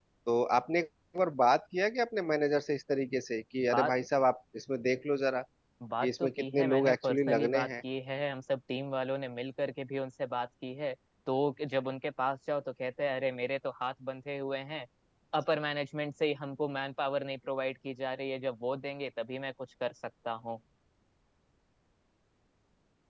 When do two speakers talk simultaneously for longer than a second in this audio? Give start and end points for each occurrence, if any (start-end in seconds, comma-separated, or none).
6.0-7.7